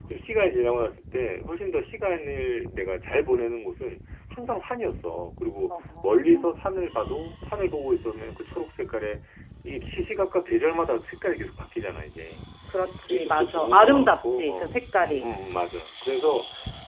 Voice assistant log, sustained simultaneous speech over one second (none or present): present